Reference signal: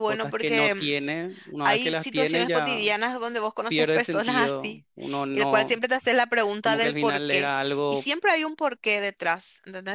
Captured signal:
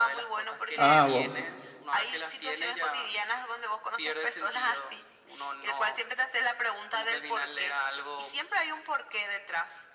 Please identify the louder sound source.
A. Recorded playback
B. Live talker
B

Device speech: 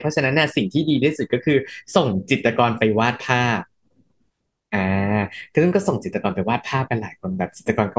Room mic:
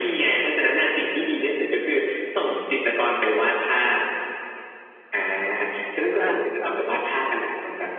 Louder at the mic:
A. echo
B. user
A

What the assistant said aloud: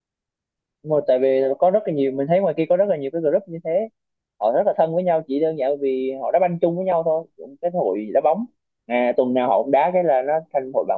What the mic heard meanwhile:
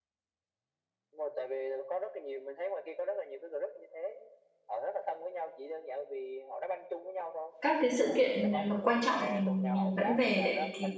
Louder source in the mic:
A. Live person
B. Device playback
A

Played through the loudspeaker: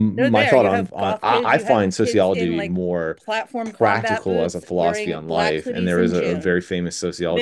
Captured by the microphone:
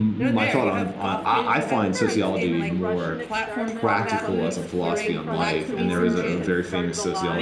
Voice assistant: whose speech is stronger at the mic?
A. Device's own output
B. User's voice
A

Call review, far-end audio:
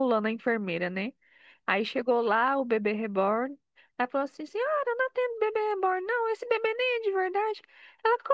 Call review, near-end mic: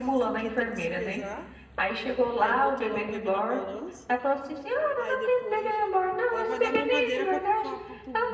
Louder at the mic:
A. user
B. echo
B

